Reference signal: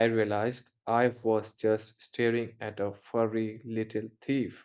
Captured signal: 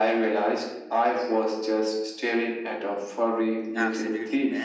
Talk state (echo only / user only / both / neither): both